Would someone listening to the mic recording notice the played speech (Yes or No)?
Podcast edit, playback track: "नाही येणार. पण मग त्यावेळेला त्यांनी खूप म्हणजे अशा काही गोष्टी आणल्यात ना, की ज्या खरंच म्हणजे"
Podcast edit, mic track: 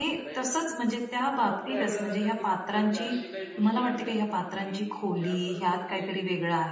Yes